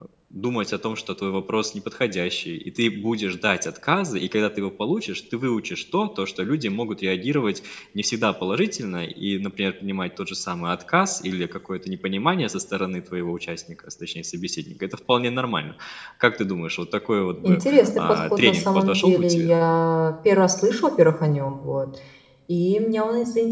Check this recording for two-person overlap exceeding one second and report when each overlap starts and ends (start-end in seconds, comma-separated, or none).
17.4-19.5